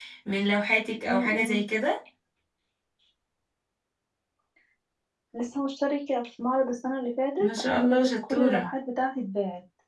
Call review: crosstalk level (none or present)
present